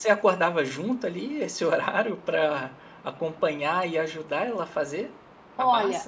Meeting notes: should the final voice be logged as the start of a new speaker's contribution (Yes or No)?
Yes